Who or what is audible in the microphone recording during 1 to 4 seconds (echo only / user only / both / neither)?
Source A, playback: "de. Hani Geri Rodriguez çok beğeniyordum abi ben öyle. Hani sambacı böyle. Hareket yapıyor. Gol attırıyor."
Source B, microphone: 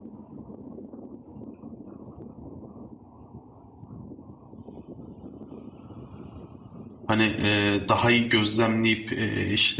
neither